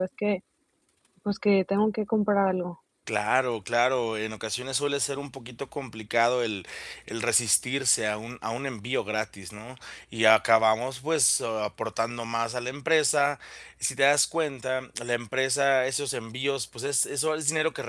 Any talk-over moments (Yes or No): No